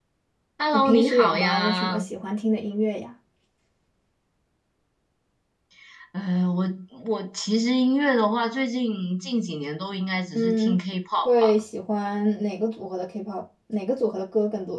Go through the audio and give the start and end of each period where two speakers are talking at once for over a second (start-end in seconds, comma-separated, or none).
0.7-2.1